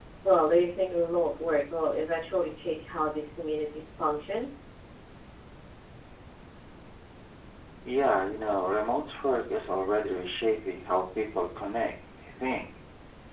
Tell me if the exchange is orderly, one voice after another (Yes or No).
Yes